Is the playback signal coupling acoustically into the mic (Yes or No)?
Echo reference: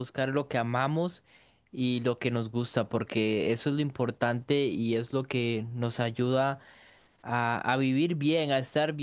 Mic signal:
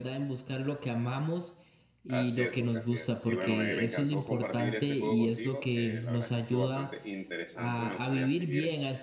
Yes